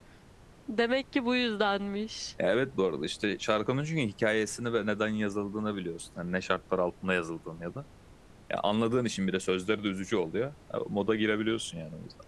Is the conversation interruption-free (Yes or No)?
Yes